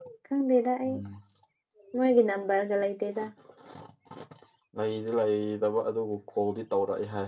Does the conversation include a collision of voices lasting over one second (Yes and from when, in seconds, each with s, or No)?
No